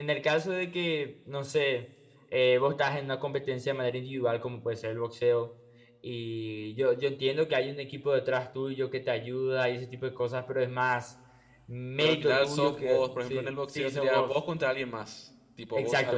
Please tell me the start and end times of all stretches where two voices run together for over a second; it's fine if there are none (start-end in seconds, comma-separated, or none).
12.0-14.3